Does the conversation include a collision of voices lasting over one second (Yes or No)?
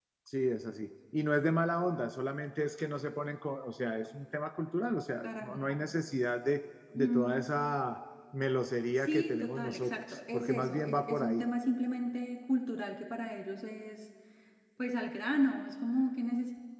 Yes